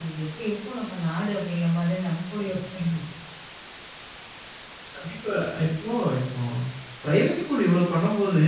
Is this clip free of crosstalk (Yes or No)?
Yes